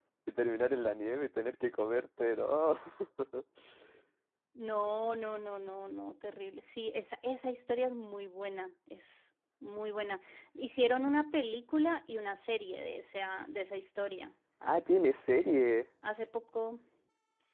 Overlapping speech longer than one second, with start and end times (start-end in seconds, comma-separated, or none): none